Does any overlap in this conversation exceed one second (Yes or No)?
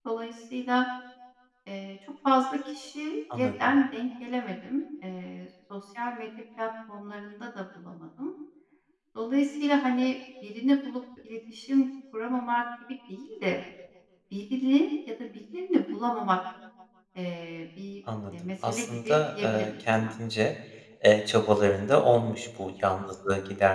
Yes